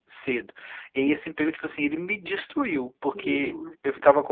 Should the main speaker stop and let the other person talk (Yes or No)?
No